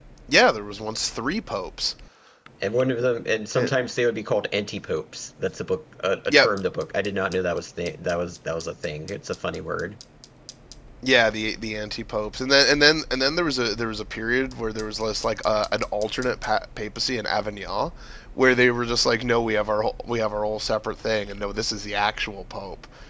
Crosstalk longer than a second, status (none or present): none